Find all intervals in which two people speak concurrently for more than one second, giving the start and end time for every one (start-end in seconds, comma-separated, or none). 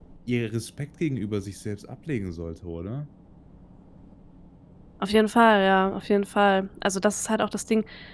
none